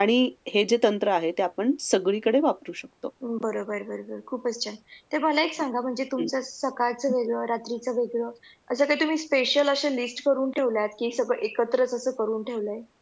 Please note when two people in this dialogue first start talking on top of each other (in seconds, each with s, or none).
none